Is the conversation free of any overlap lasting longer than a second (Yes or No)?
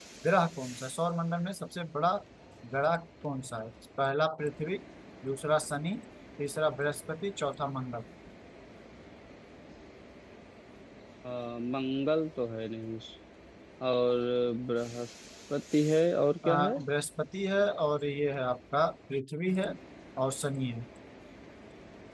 Yes